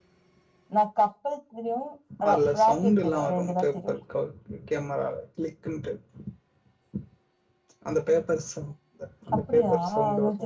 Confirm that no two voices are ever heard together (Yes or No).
No